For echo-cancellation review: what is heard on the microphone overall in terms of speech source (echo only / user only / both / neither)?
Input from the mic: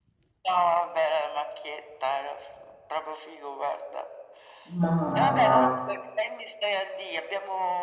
both